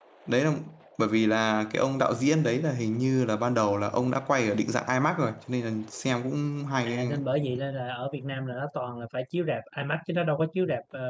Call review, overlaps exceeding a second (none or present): none